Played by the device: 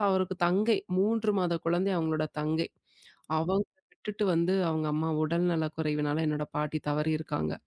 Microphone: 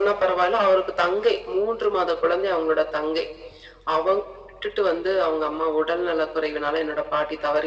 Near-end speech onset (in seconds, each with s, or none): none